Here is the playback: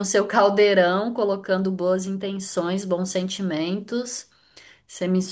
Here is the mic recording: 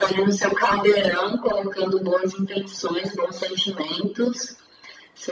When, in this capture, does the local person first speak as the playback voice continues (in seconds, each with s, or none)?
none